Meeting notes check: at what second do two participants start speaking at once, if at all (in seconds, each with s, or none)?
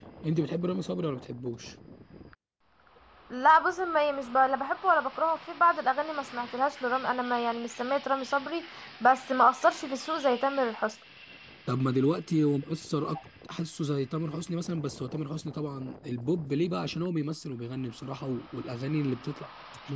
none